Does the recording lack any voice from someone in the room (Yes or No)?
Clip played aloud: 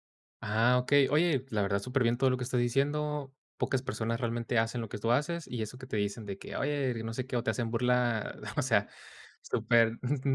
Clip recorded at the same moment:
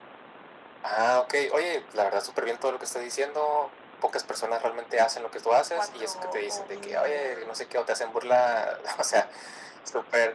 No